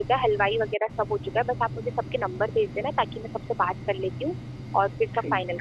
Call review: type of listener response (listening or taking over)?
taking over